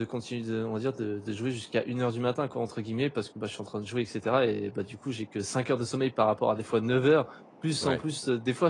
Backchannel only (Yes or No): Yes